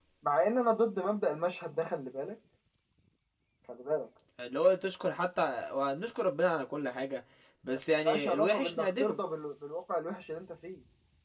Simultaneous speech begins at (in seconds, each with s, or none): 8.0 s